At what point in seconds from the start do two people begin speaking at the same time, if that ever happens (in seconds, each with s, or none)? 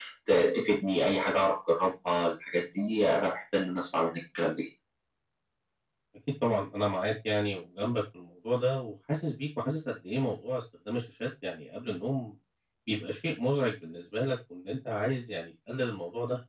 none